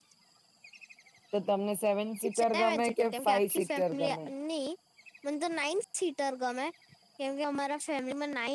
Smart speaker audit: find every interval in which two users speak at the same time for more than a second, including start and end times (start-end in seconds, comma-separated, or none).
2.4-4.2